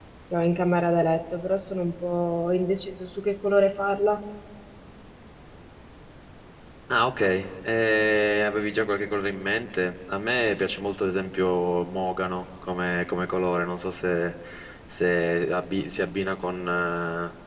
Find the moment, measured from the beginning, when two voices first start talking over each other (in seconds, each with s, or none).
none